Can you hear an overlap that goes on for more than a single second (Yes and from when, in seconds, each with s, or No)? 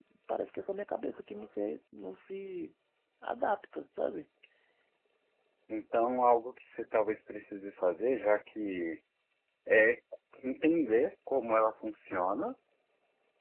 No